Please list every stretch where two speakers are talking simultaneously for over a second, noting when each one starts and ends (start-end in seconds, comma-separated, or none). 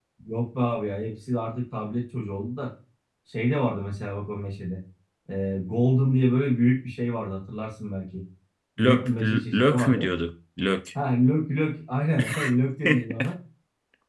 8.8-10.1